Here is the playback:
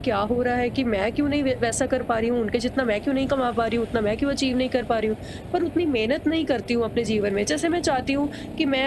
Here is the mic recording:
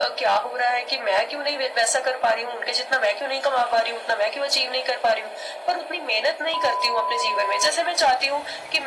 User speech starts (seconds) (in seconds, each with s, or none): none